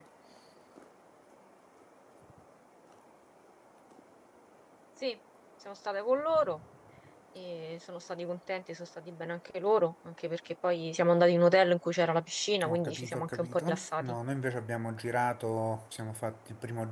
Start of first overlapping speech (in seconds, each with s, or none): 12.6 s